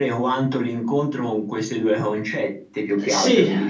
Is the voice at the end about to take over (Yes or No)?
Yes